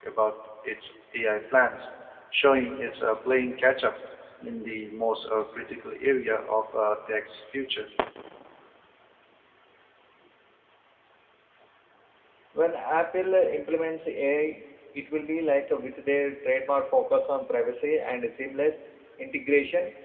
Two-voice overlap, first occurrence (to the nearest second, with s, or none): none